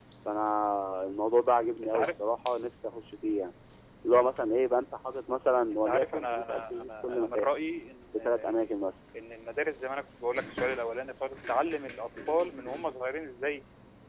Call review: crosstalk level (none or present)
present